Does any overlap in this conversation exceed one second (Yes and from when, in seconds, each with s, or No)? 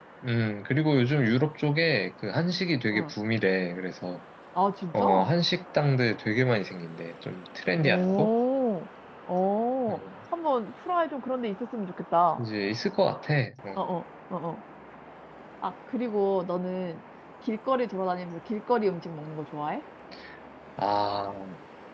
No